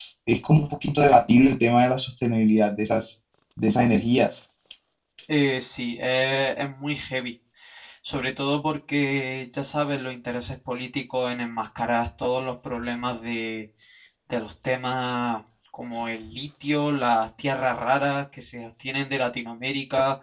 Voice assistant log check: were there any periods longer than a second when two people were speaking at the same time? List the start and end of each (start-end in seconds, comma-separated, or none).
none